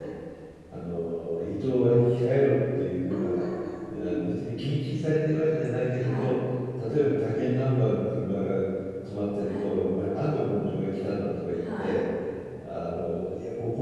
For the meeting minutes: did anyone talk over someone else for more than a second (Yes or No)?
No